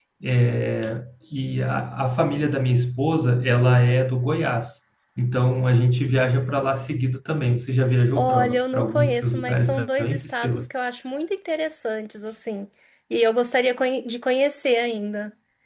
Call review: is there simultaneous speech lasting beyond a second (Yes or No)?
Yes